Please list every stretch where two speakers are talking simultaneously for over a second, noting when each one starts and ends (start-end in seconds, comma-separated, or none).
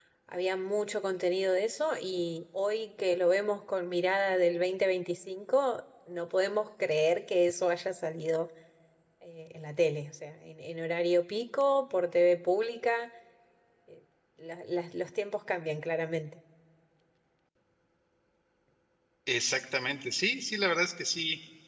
none